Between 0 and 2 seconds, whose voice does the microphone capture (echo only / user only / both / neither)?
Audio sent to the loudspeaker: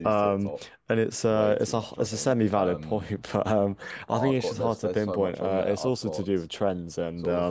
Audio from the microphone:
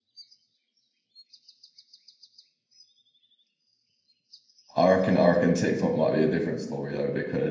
neither